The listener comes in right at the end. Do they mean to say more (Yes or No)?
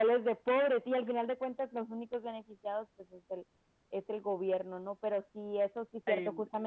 No